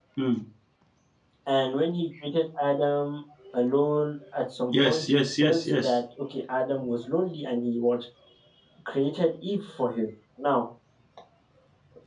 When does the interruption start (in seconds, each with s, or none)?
4.7 s